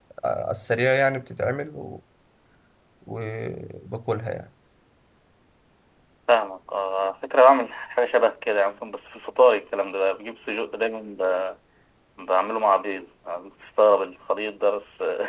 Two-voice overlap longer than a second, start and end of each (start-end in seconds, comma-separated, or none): none